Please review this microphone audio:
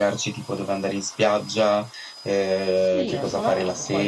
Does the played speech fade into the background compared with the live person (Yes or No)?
No